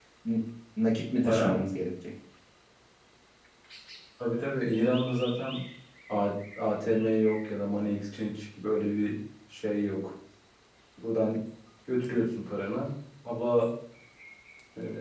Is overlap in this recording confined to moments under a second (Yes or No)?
Yes